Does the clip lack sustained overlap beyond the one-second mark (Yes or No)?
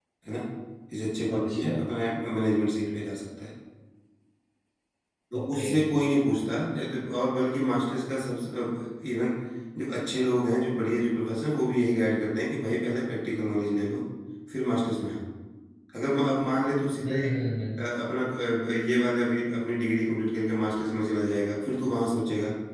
Yes